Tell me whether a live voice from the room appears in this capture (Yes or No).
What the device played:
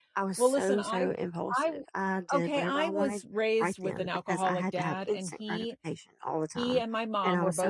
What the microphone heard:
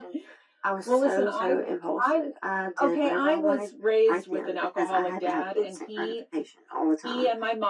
No